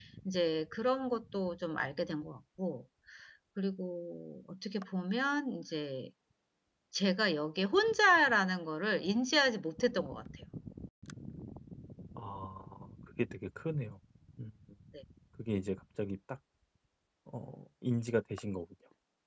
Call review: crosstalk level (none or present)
none